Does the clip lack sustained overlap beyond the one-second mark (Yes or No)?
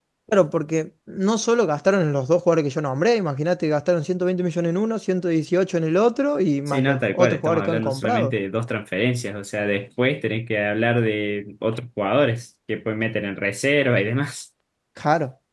No